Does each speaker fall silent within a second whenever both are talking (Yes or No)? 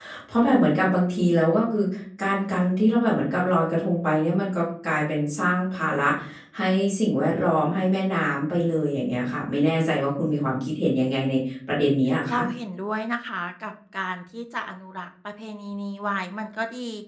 Yes